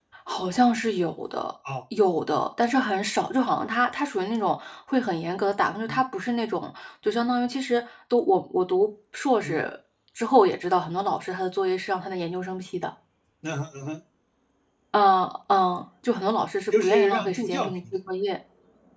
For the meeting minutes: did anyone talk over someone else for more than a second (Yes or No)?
Yes